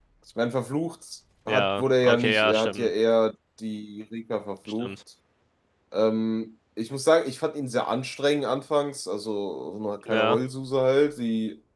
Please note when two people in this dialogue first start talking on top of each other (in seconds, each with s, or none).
1.5 s